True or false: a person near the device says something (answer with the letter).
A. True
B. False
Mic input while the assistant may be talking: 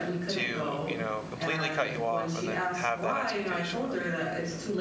A